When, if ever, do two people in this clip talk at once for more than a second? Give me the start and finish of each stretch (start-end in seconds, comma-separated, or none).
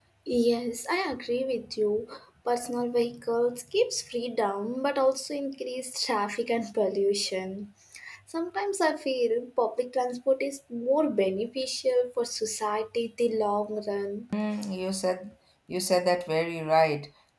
none